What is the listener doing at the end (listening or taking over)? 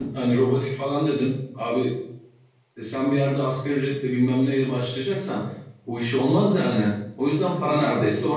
taking over